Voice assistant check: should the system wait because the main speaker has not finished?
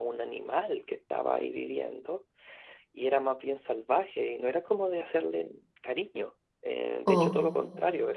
Yes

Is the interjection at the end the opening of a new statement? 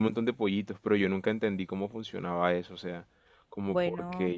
No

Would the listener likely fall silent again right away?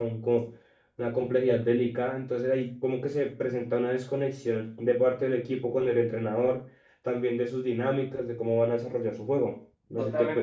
No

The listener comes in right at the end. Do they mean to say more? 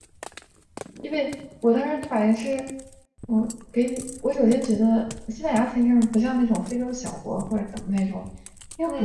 Yes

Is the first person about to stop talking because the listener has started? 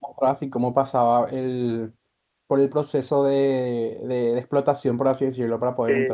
Yes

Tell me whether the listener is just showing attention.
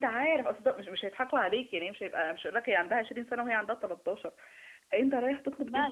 Yes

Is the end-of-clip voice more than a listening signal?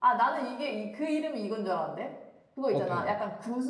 No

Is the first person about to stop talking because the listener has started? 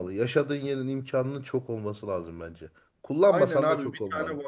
Yes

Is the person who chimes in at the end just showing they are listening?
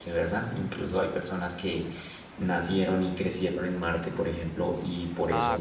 Yes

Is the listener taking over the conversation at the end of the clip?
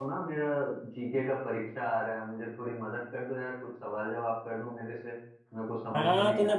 Yes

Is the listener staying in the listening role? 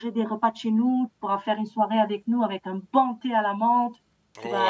No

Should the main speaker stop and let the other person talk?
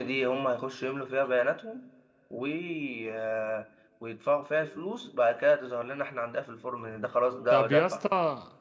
Yes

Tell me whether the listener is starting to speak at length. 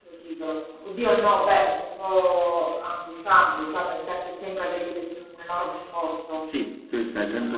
Yes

